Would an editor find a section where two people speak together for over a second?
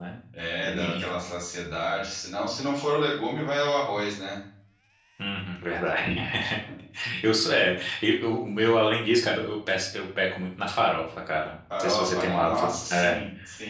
Yes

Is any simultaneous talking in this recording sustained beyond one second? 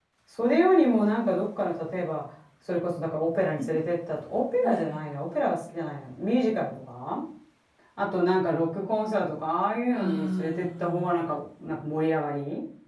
Yes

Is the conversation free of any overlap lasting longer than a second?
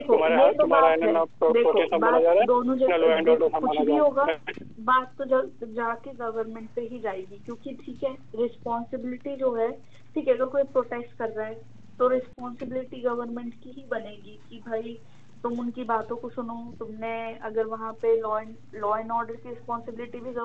No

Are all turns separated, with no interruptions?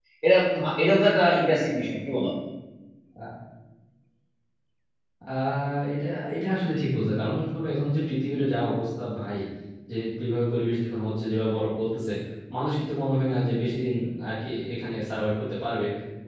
Yes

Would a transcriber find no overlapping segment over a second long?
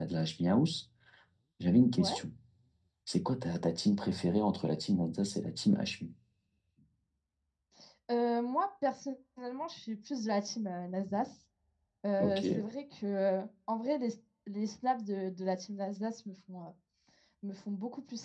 Yes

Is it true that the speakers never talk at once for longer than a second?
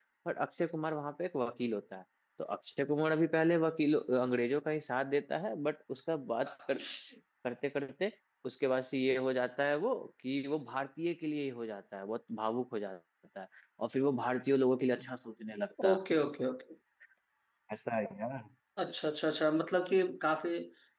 Yes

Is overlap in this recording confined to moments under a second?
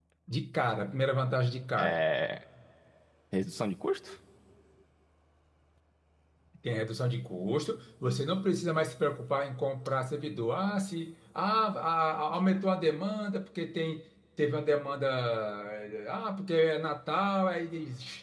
Yes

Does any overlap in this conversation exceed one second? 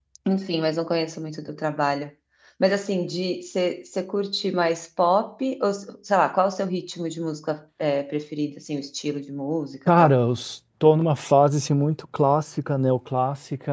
No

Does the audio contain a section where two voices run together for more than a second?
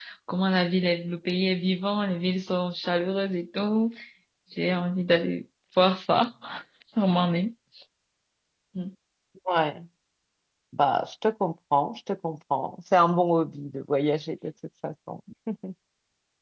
No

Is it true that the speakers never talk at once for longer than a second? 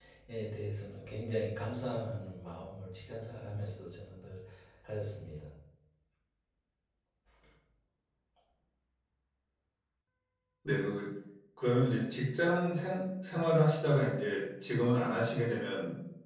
Yes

